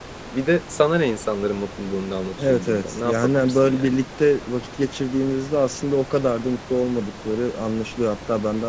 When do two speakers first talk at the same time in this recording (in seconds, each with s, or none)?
2.4 s